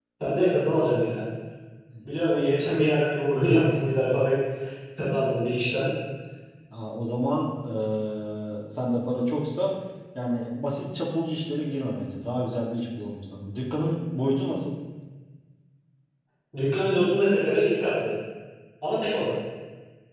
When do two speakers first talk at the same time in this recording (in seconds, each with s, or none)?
none